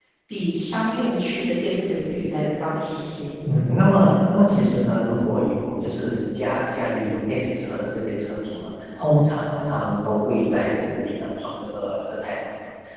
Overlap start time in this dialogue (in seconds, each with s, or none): none